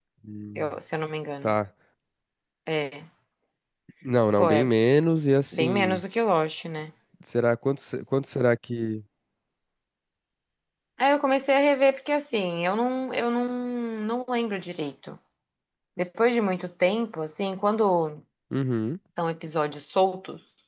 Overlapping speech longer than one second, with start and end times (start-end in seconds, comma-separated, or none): none